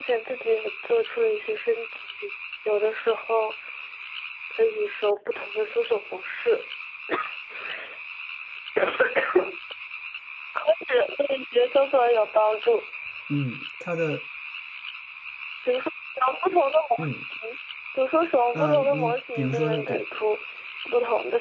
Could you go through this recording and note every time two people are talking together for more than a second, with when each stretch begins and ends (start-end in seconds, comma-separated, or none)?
18.5-20.0